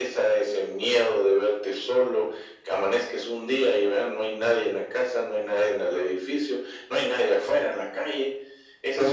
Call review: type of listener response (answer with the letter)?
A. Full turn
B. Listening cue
A